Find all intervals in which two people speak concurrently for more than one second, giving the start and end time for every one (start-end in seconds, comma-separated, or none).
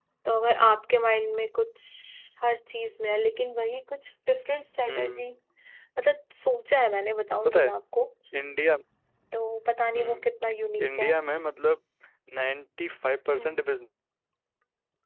none